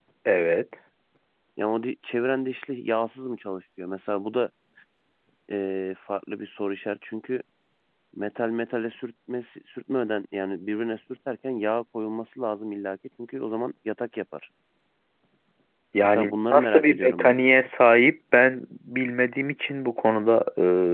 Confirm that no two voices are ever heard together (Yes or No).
No